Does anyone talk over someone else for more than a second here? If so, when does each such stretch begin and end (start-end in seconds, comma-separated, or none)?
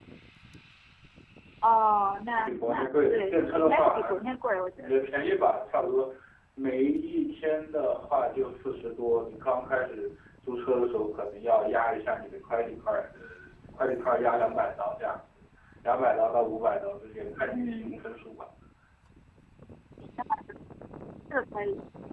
2.3-4.2